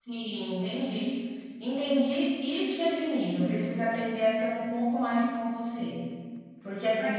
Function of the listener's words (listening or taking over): listening